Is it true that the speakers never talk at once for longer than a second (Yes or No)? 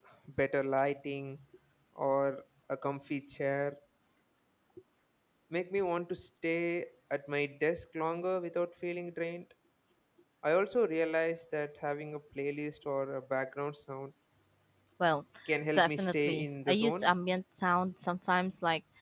No